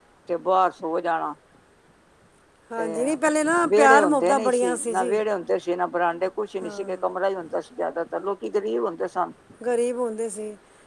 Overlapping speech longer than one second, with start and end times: 3.8-5.1

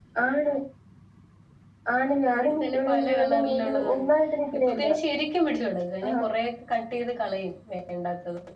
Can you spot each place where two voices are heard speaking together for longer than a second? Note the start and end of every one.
2.3-4.1

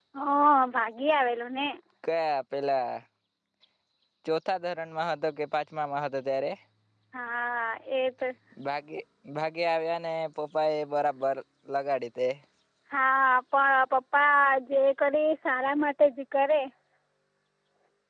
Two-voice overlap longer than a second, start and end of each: none

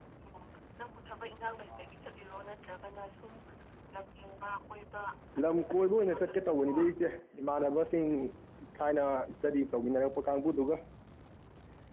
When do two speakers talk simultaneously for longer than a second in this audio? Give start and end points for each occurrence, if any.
5.5-6.7

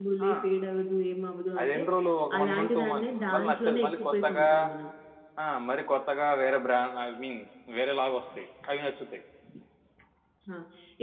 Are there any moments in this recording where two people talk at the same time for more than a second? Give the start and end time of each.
2.4-4.5

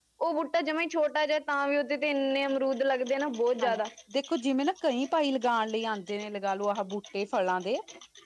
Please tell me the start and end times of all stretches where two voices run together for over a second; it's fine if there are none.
none

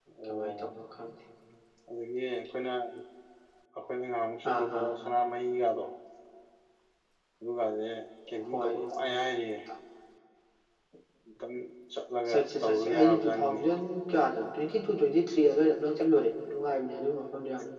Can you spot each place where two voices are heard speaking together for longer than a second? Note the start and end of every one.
12.3-13.6

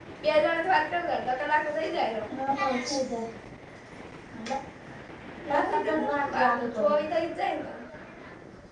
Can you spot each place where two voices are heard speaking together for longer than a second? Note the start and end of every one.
5.7-7.0

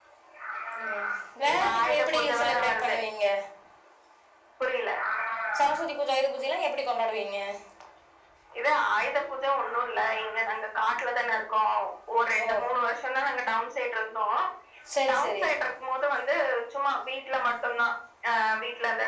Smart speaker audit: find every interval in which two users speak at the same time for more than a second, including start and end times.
1.5-3.0

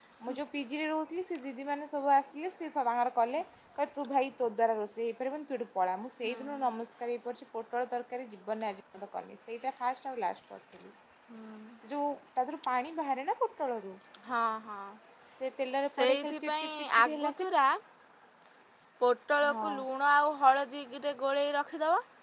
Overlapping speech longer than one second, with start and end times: 16.0-17.4

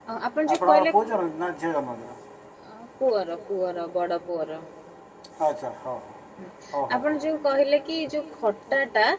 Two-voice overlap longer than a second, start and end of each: none

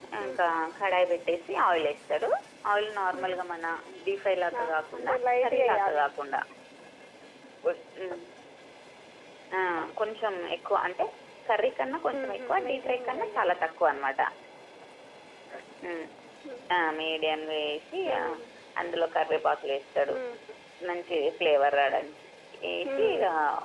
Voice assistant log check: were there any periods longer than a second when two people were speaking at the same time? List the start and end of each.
4.6-6.0, 12.2-13.4

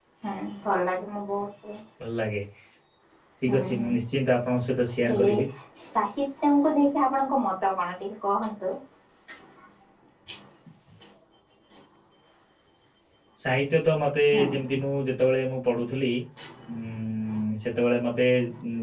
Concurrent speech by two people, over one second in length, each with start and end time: none

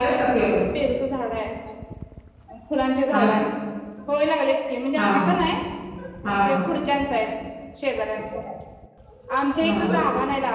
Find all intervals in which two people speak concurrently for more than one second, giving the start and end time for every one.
none

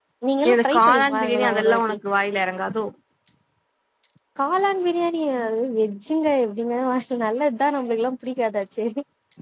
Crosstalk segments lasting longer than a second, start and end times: 0.5-1.9

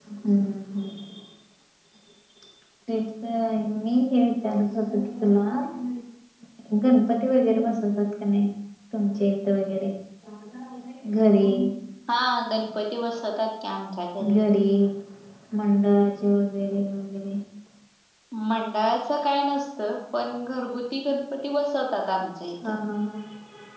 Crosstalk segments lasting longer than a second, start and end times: none

